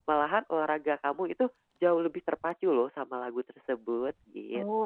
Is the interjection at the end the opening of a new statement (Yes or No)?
Yes